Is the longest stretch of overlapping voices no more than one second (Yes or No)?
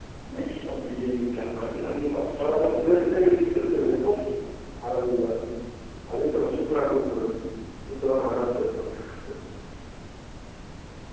No